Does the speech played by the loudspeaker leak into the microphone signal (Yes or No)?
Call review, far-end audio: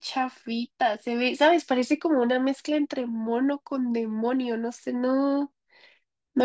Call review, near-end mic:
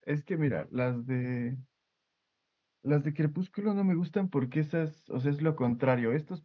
No